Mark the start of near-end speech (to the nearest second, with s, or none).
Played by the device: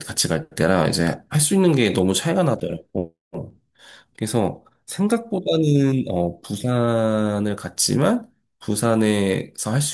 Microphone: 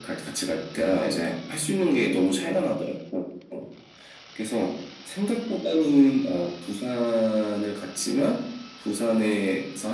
none